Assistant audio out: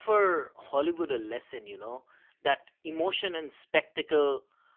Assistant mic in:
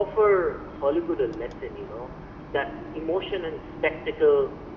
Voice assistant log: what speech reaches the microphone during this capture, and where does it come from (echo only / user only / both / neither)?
echo only